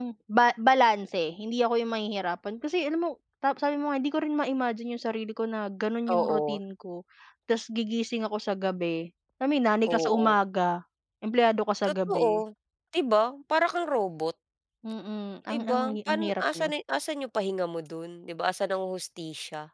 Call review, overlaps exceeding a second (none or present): present